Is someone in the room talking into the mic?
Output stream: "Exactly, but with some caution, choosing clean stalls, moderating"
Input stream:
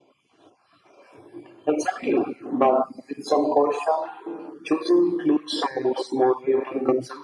No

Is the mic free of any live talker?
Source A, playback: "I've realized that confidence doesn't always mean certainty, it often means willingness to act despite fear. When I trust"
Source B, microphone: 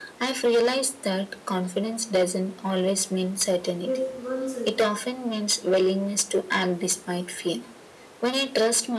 No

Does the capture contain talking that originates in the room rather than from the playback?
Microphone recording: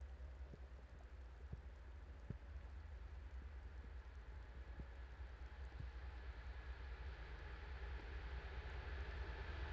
No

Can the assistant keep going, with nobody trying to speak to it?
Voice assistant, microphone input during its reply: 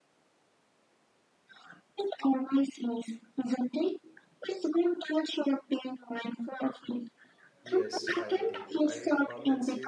No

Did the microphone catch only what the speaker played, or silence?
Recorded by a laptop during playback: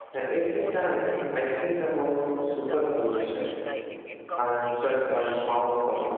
No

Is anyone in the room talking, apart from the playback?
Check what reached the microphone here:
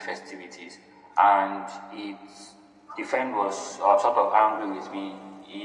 No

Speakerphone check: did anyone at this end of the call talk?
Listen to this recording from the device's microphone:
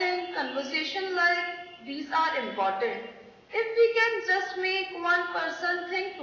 No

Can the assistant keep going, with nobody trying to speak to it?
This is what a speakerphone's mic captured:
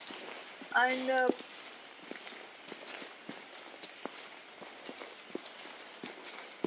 No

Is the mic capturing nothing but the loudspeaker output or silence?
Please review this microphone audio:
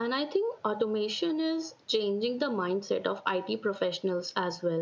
Yes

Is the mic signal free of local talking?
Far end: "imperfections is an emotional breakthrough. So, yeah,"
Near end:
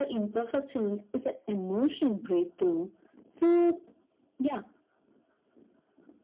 Yes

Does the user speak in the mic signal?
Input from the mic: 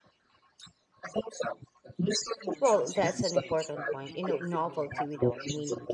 Yes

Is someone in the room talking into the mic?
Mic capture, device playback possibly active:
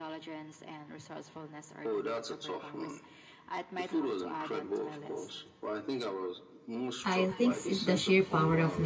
Yes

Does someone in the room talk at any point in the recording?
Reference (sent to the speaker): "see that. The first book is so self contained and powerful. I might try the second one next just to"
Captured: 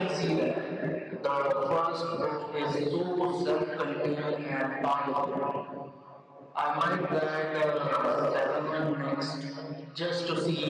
No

